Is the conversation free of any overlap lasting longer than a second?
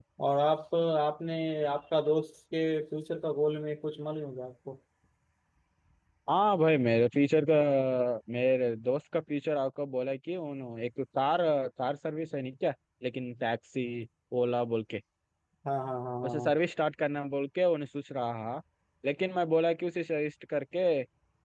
Yes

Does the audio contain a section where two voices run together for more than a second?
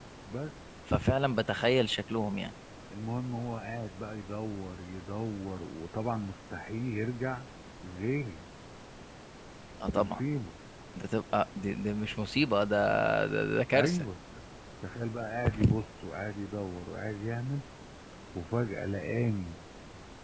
No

